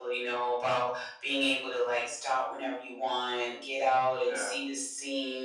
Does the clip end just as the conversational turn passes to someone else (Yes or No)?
No